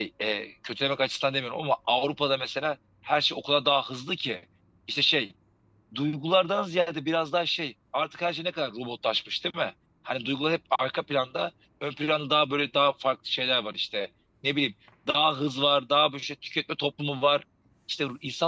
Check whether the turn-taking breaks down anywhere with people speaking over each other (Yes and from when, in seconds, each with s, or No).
No